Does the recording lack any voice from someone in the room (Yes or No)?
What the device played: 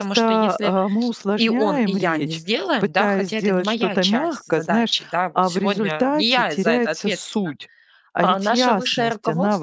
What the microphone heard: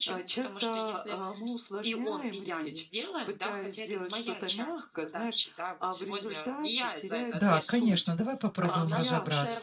No